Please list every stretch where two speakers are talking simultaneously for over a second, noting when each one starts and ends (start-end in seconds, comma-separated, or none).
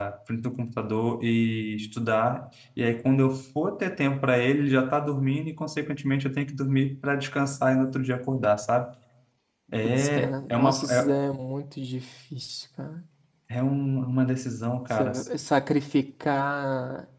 9.8-11.2